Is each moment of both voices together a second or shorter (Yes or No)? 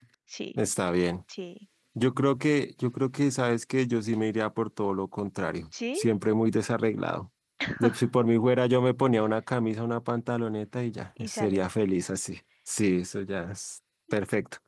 Yes